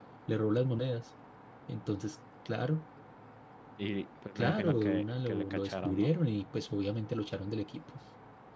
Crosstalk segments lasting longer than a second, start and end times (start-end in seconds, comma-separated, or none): 4.3-6.2